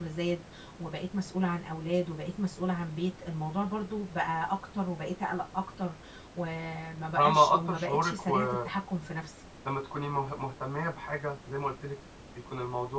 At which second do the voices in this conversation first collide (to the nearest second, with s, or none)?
7 s